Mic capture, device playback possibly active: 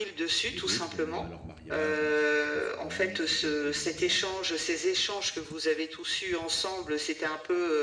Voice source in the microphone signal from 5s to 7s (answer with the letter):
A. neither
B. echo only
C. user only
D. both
B